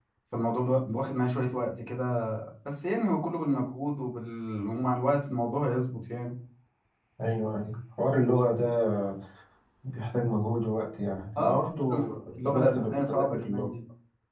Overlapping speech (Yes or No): Yes